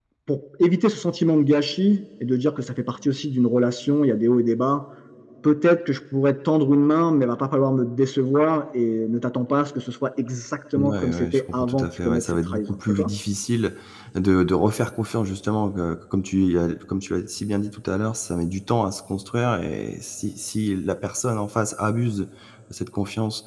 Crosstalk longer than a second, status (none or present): present